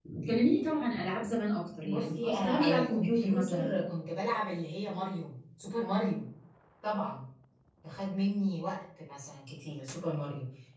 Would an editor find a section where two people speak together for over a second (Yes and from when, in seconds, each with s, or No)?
Yes, from 1.8 s